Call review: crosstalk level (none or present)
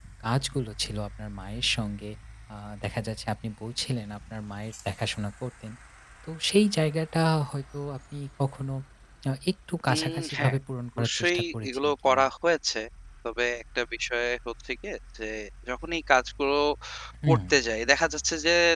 present